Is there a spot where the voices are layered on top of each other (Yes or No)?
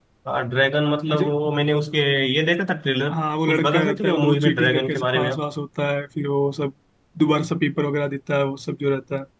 Yes